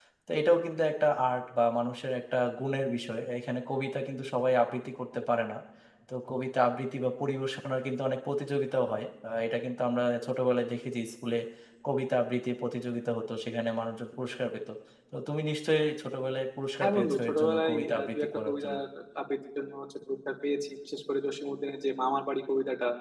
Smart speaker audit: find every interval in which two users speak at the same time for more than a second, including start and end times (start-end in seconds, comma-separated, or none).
16.8-18.8